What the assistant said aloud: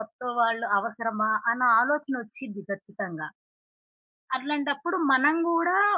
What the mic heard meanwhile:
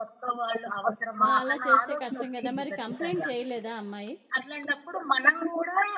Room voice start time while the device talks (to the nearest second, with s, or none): 1 s